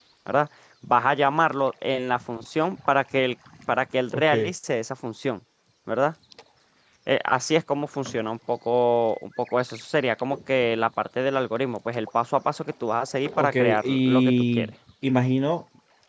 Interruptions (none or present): present